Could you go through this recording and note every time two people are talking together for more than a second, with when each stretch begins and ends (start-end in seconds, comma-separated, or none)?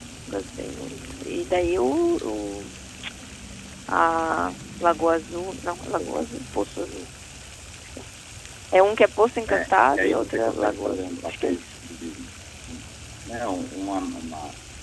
9.5-11.6